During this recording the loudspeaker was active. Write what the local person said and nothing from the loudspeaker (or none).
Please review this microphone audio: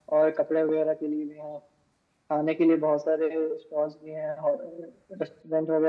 none